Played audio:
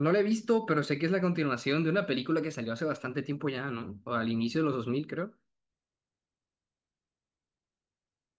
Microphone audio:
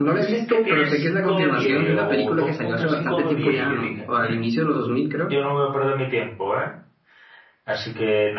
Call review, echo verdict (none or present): present